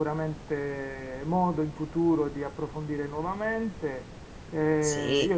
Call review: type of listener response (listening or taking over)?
listening